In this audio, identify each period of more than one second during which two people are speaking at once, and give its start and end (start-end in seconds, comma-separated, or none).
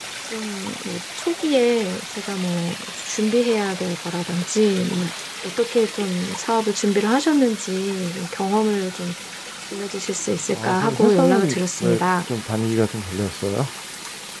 10.6-12.0